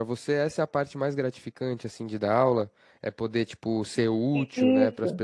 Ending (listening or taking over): listening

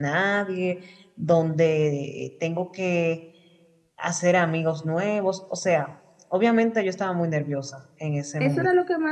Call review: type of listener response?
taking over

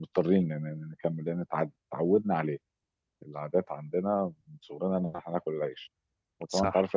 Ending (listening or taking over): listening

